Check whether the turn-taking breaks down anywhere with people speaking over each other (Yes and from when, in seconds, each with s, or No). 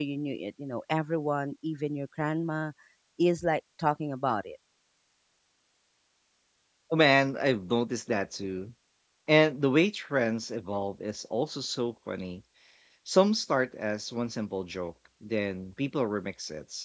No